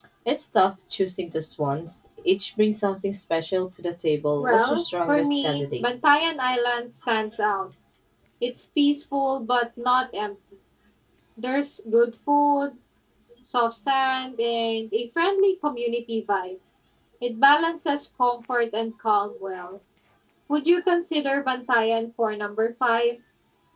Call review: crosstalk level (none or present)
present